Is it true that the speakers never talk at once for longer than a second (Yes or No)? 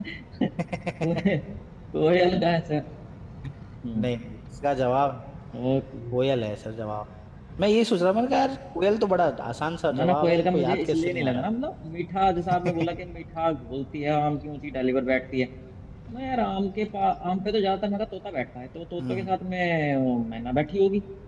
No